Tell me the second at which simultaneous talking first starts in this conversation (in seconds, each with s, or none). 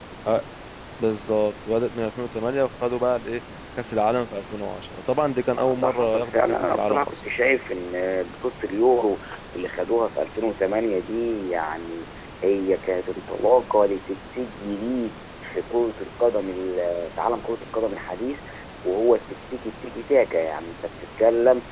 5.6 s